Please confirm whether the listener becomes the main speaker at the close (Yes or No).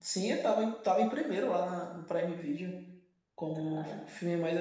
No